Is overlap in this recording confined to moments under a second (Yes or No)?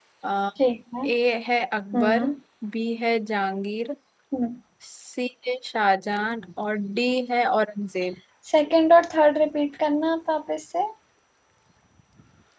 Yes